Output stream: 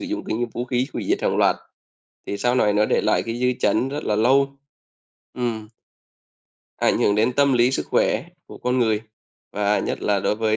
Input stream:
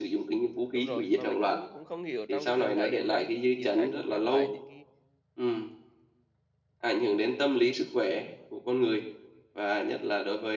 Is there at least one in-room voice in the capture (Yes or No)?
Yes